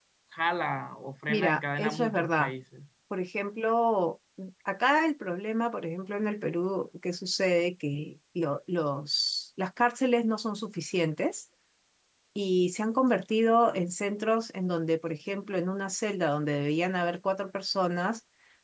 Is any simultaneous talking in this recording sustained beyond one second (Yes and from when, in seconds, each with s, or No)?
Yes, from 1.3 s